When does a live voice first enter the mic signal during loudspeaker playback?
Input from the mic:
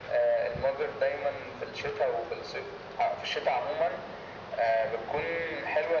none

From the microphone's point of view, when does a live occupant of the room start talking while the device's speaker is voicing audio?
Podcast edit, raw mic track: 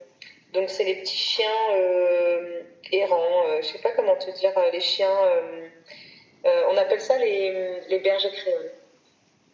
none

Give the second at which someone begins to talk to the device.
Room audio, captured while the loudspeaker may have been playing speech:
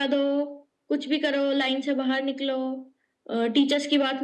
none

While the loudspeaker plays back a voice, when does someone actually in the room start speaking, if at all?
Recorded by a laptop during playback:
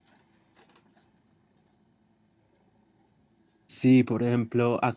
3.7 s

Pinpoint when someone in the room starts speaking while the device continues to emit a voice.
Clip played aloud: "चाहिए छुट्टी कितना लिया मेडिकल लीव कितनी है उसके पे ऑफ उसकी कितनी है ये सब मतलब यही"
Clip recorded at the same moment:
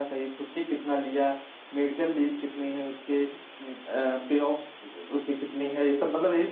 none

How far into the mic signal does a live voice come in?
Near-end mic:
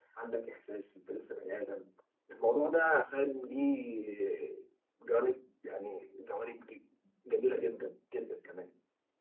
none

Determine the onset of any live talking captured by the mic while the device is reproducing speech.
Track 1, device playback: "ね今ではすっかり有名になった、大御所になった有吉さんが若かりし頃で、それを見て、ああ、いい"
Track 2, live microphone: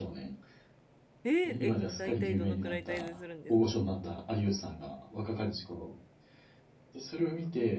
1.2 s

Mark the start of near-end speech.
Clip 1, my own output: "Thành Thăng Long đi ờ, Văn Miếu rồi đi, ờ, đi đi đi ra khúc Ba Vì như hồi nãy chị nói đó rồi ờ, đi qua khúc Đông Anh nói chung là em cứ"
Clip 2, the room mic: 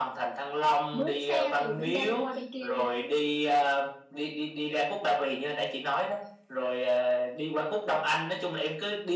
0.9 s

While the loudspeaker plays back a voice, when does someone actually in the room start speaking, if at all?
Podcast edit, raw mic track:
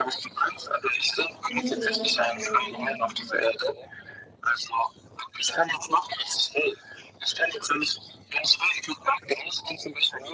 1.5 s

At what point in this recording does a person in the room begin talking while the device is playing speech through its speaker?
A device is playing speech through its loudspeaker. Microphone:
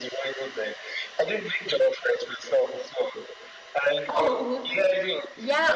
4.1 s

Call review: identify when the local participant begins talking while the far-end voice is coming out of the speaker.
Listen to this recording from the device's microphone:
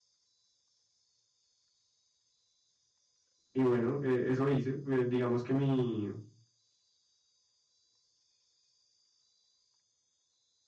3.5 s

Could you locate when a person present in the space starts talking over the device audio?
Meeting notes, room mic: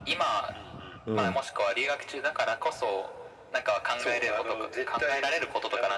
1.0 s

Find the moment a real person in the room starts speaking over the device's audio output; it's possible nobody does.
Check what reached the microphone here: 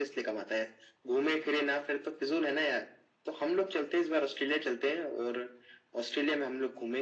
none

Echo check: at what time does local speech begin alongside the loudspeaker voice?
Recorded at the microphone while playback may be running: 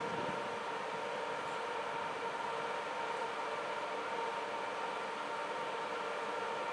none

